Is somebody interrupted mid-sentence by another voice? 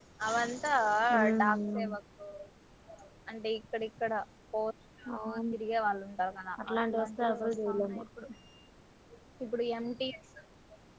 Yes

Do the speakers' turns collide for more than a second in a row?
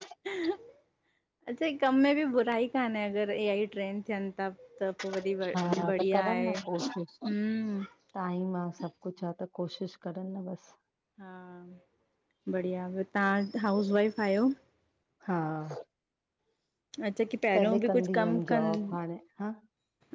Yes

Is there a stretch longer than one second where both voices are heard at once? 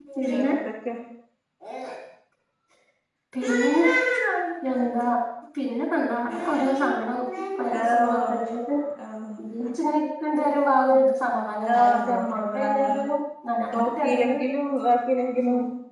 Yes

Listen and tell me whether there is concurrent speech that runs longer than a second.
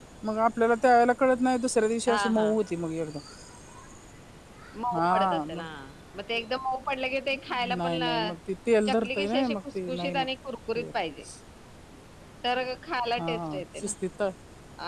Yes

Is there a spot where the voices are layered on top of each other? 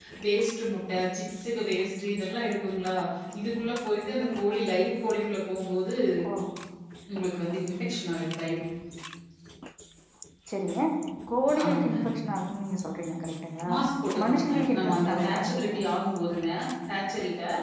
Yes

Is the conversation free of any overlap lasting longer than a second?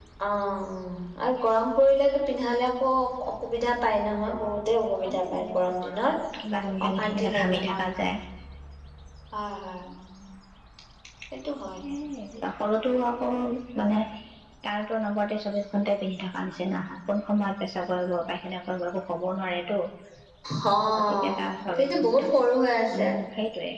No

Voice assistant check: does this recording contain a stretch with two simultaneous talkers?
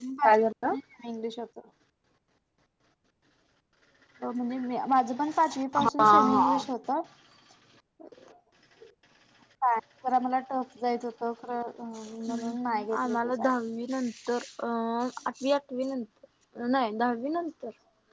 Yes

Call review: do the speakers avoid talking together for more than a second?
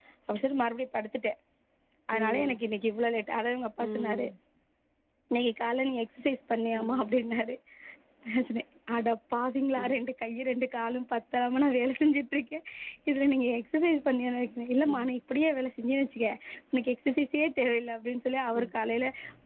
Yes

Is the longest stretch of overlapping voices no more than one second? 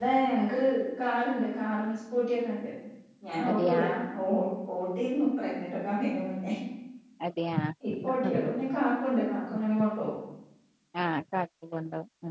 Yes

